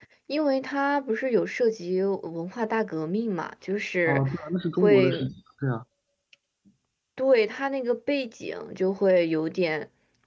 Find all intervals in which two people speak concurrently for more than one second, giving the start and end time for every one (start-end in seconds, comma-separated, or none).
none